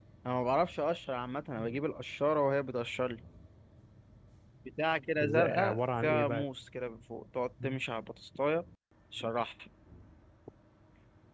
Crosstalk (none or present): present